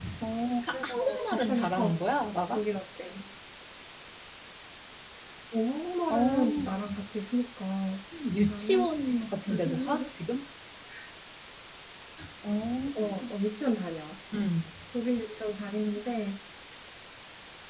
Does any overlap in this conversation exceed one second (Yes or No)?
Yes